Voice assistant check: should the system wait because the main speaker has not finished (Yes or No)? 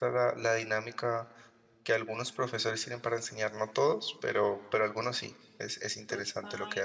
No